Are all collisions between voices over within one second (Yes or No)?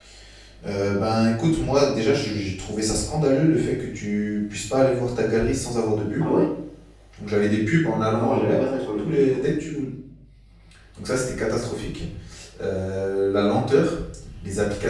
Yes